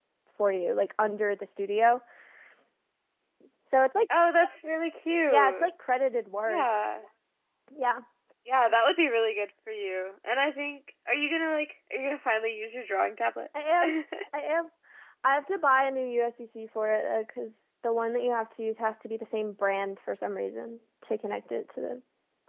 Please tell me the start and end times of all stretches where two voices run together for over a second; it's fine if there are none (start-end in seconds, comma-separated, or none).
none